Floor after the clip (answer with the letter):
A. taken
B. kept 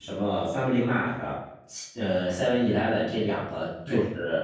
B